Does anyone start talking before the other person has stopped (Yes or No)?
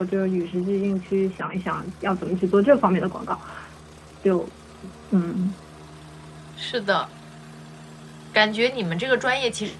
No